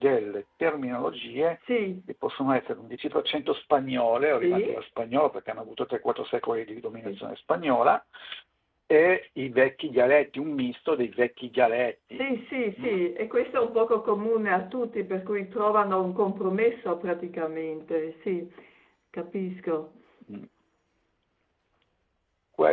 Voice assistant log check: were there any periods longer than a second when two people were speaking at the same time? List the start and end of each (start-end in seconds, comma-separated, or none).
none